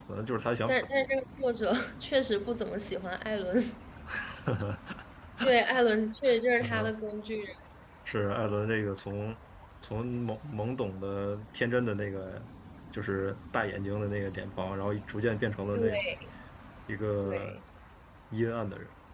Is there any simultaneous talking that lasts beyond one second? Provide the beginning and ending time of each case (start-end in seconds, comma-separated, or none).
none